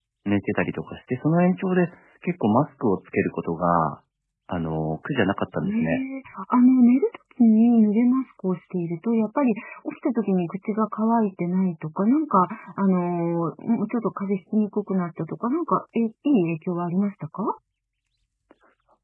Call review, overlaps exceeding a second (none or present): none